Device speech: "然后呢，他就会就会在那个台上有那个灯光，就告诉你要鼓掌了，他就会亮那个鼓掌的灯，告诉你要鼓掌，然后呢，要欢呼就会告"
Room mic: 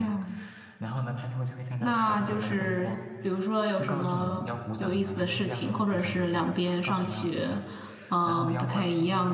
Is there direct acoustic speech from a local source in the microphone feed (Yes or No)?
Yes